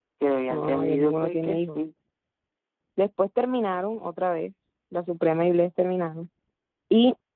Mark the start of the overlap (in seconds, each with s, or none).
0.5 s